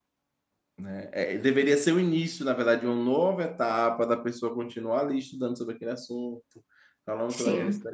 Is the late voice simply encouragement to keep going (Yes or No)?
Yes